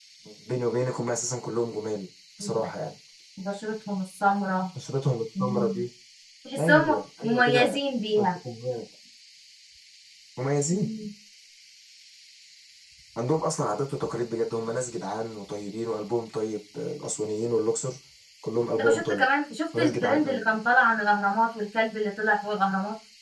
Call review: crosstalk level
present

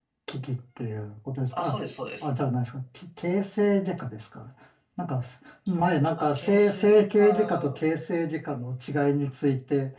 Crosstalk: present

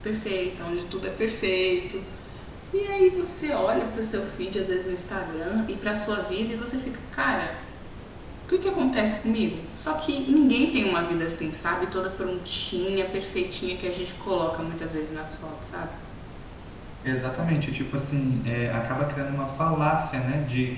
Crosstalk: none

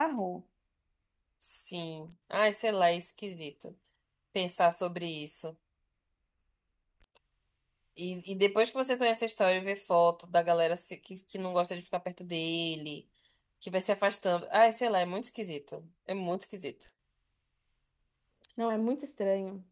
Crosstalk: none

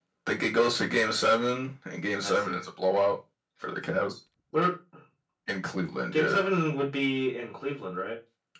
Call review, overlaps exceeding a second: none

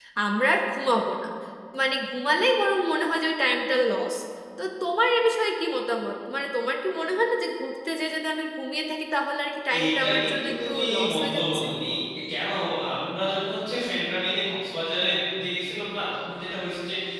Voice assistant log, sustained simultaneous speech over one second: present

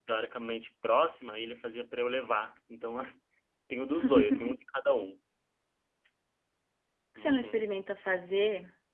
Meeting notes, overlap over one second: none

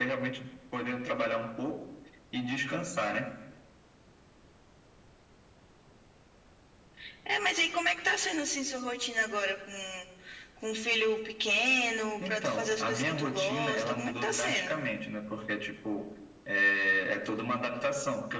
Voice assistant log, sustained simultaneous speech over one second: present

